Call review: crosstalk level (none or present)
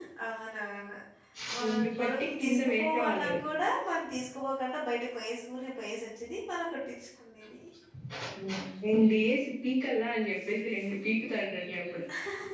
present